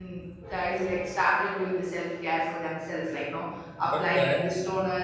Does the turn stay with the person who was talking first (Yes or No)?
Yes